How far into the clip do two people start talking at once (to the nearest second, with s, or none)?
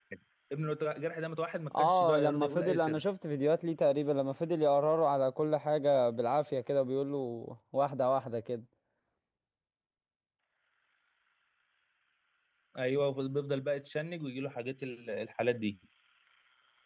2 s